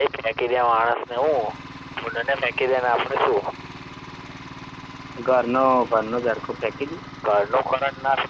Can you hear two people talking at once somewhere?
No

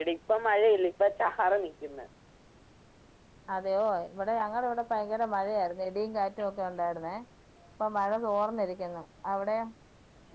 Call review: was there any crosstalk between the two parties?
No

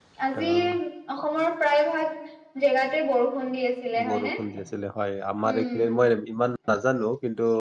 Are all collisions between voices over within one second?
Yes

